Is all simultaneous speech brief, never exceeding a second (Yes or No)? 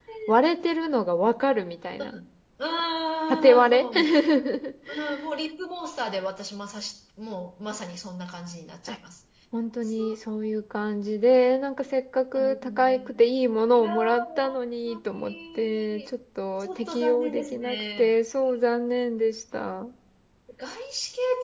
No